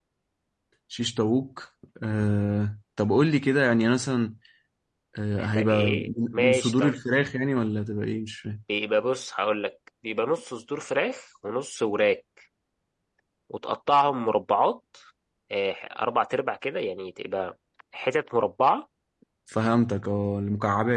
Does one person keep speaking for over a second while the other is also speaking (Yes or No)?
Yes